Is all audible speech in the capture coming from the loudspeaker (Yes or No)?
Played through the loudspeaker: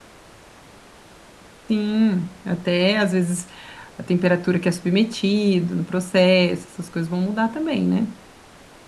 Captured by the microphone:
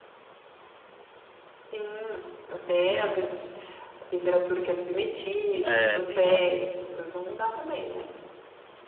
No